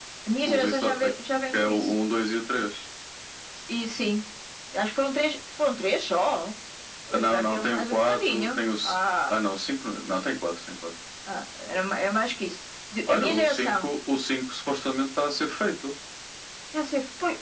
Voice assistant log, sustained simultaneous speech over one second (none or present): present